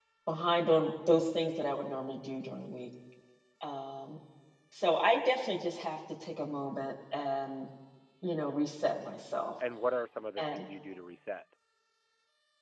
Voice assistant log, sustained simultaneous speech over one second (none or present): none